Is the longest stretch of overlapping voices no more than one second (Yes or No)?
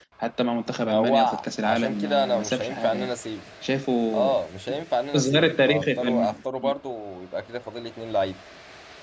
No